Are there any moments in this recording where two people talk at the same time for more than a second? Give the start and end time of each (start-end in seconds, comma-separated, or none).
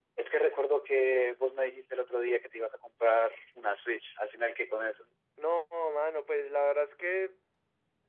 none